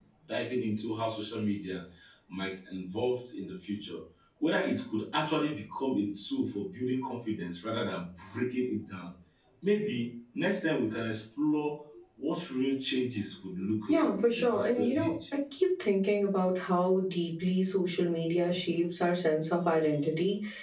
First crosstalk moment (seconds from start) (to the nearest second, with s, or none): 14 s